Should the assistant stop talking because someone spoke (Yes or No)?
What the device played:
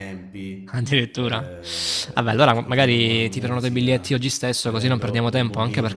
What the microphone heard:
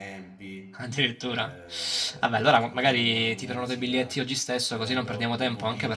No